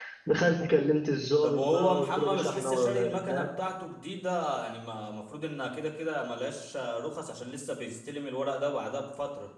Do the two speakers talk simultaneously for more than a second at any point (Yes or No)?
Yes